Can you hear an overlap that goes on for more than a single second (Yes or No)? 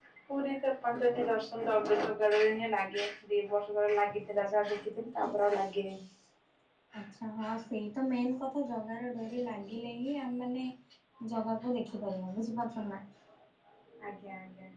No